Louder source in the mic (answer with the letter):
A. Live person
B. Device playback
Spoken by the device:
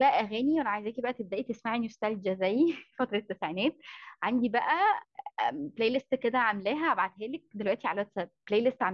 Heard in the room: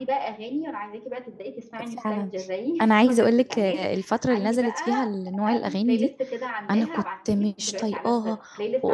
A